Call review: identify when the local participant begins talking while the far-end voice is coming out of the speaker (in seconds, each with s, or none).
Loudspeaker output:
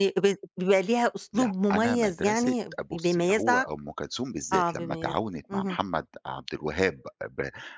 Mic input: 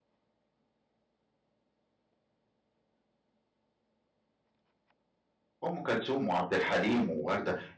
5.6 s